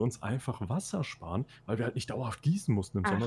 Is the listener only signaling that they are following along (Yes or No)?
Yes